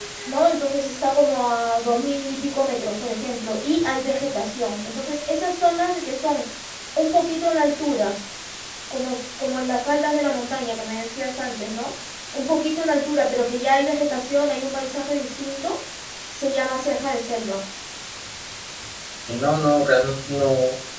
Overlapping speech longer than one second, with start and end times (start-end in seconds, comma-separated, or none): none